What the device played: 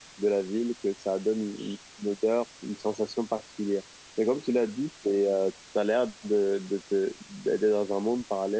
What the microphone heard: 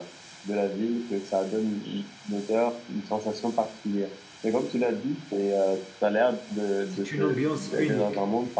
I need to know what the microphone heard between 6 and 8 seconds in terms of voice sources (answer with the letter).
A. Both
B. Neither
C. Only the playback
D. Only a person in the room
A